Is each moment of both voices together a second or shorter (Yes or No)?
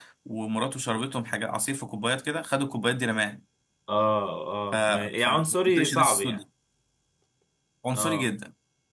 No